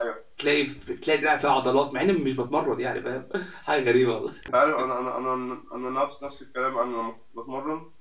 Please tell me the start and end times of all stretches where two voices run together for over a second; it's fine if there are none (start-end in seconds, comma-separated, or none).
none